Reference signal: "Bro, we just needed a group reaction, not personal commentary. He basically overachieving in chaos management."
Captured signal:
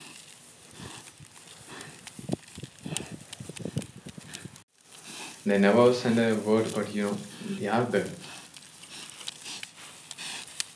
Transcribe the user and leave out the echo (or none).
they never send a word, but you know, they are there.